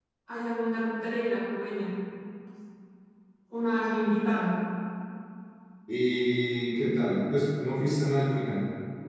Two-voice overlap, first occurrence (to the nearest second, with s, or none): none